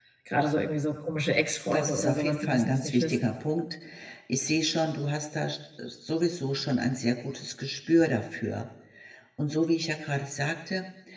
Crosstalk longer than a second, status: present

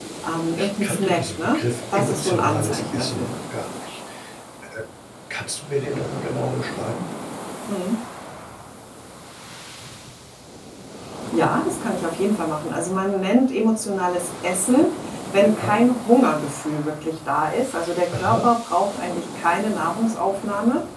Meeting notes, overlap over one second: present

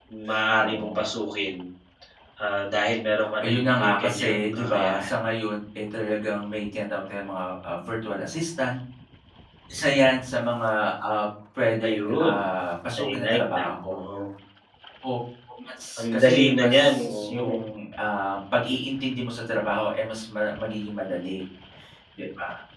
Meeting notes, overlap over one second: present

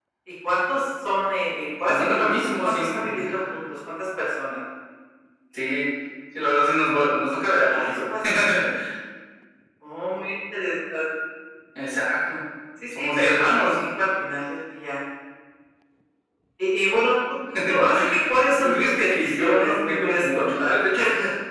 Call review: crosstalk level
present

